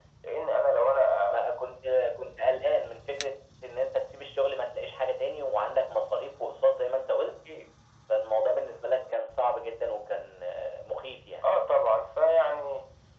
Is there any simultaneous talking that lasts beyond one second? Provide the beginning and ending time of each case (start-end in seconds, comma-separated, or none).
none